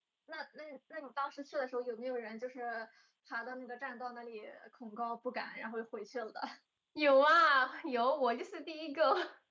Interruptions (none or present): none